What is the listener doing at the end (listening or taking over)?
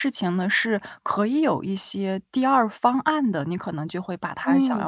listening